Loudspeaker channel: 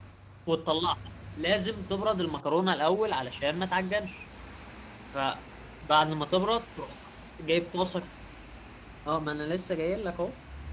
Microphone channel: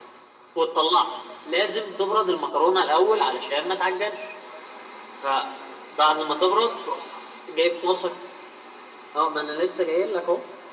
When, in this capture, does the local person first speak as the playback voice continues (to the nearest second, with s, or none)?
none